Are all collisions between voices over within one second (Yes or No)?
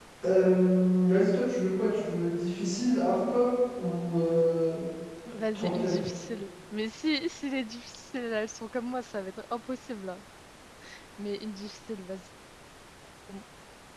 Yes